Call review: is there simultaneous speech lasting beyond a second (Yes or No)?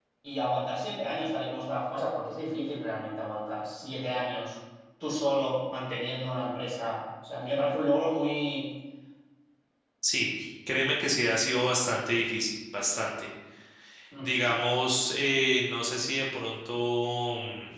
No